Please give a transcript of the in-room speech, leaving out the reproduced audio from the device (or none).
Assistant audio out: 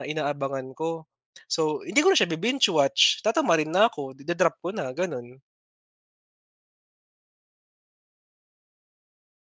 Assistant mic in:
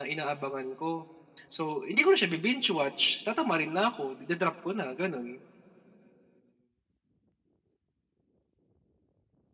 none